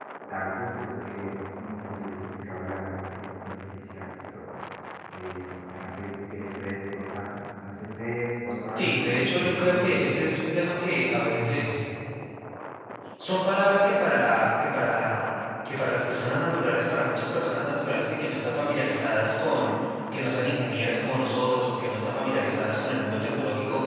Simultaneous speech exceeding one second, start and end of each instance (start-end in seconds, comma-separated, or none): 8.8-10.1